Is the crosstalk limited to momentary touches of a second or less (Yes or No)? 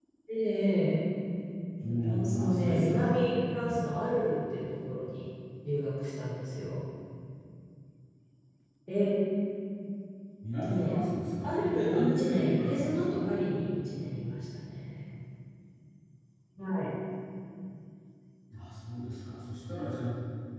No